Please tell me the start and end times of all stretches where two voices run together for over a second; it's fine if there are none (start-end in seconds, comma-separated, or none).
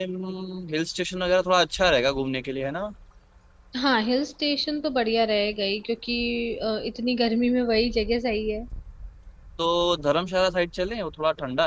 none